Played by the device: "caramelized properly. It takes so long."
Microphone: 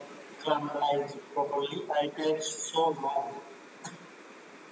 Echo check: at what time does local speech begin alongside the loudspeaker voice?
none

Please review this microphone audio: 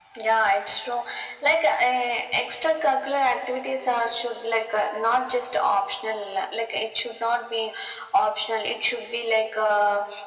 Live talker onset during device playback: none

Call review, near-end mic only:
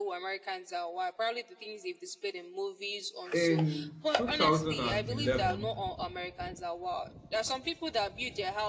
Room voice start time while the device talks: 3.3 s

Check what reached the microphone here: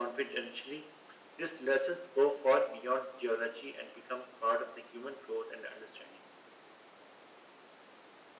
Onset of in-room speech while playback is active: none

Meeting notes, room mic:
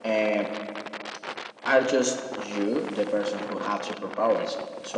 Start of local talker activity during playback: none

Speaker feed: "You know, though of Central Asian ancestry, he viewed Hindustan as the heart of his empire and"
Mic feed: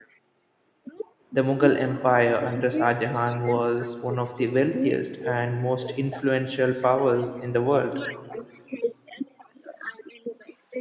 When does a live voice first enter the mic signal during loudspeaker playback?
1.3 s

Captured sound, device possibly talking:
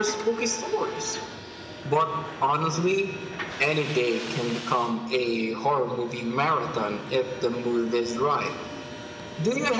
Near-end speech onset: none

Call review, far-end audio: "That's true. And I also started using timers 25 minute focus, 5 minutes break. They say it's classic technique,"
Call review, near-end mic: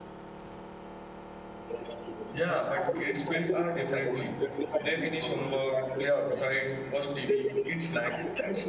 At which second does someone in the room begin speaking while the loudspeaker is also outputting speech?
2.3 s

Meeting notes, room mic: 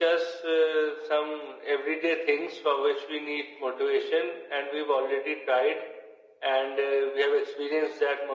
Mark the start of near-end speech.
none

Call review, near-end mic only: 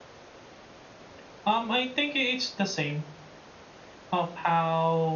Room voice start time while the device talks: none

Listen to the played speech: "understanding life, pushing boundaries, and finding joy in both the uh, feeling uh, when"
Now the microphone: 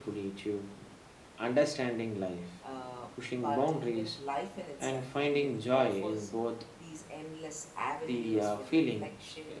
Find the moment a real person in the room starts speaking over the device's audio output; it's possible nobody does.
2.6 s

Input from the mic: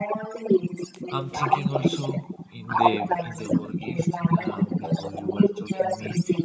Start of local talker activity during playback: 1.1 s

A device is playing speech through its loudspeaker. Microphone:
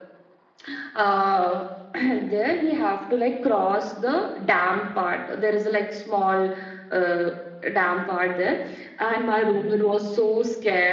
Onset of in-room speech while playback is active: none

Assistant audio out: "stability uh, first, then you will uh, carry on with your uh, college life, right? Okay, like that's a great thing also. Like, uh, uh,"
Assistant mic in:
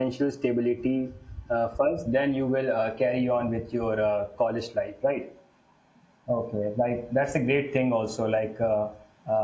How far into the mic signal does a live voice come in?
none

